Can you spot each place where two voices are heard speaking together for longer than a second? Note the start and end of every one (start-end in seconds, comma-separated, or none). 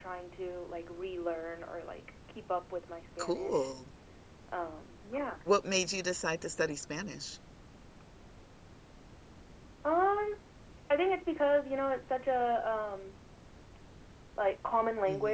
none